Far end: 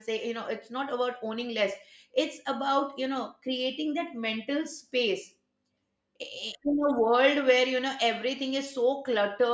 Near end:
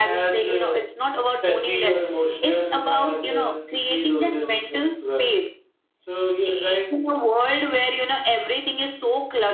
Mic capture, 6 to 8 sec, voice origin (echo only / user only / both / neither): both